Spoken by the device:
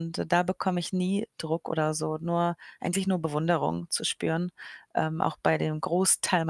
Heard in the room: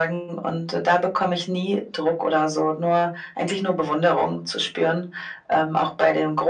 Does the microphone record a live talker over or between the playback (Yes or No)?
No